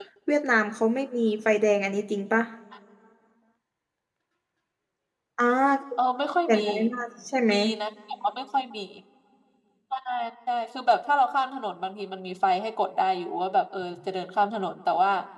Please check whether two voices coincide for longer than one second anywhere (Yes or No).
No